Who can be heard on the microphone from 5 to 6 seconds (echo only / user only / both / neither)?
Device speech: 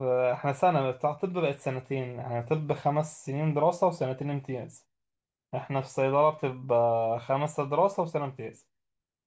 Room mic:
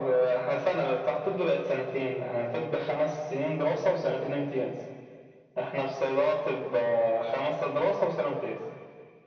echo only